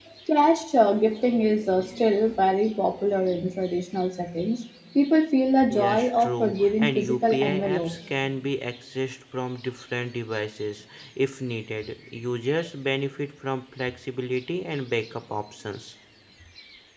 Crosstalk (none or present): present